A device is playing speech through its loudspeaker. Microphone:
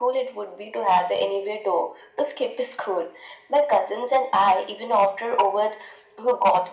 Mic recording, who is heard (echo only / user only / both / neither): echo only